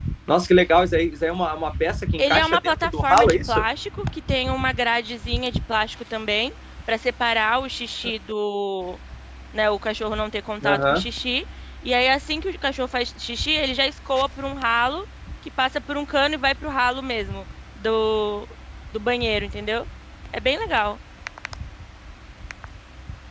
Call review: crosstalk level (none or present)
present